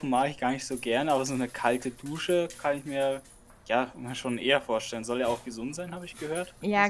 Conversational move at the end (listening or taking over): taking over